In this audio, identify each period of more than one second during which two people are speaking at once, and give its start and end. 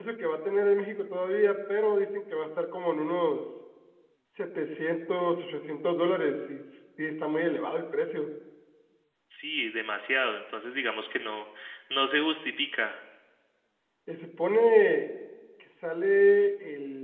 none

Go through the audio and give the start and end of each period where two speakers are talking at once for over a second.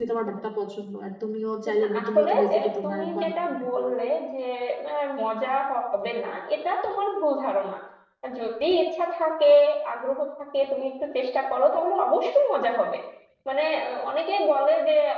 1.8-3.2

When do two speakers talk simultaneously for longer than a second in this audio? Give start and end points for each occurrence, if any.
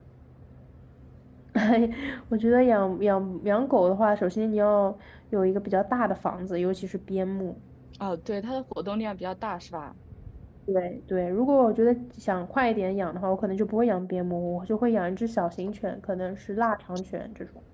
none

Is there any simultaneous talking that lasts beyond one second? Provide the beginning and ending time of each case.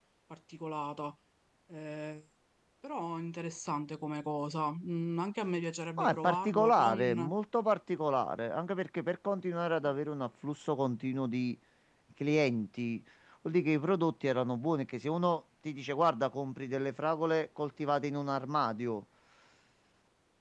6.0-7.3

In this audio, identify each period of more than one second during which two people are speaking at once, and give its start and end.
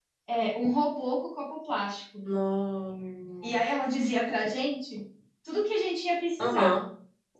none

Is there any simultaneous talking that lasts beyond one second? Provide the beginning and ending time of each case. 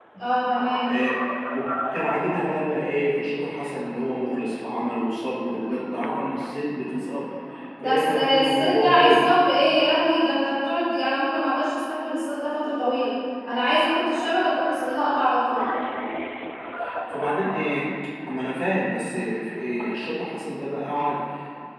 7.8-9.2

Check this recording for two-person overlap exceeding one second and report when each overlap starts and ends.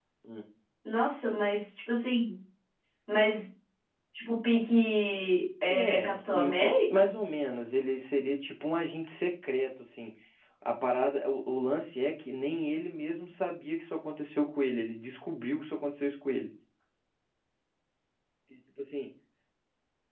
5.7-7.1

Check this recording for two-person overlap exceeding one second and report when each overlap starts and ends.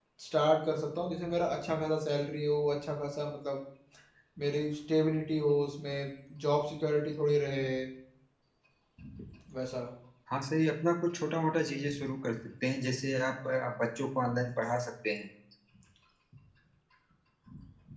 none

